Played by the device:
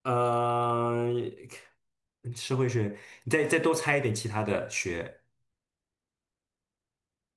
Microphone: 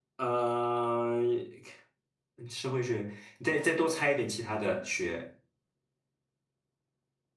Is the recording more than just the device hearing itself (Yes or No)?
No